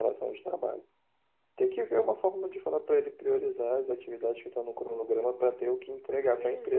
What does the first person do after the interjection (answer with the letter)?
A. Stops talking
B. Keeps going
A